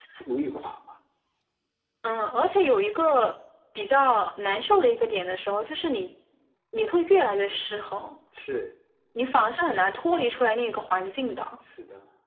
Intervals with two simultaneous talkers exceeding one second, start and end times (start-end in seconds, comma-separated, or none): none